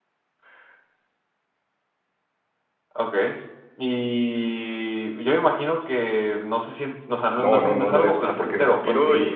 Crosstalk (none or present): present